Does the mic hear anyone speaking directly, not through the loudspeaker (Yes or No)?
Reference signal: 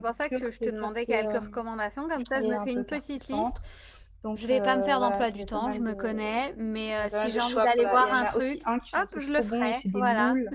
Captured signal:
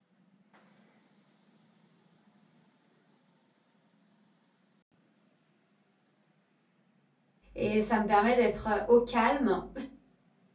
Yes